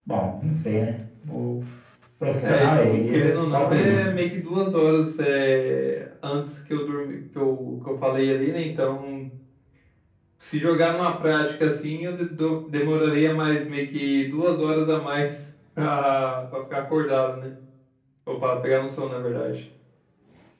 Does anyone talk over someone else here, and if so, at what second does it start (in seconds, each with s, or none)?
2.4 s